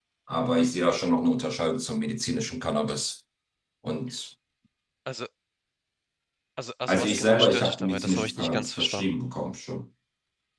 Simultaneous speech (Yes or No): Yes